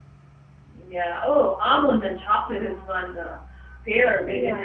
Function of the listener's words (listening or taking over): listening